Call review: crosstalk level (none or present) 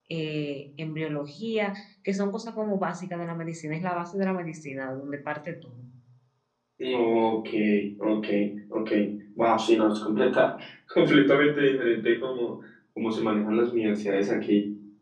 none